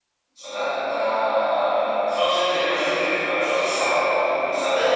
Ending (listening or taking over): taking over